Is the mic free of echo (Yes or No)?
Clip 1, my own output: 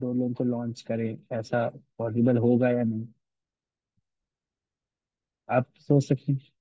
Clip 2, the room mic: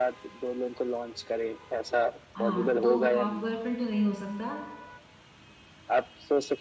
No